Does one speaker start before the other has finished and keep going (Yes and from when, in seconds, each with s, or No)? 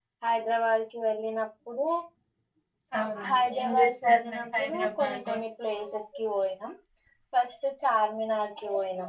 Yes, from 3.3 s